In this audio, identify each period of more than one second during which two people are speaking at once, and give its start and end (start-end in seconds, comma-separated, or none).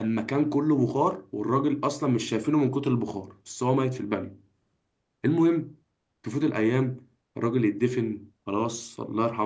none